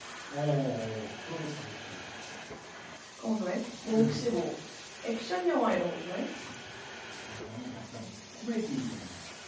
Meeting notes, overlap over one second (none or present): none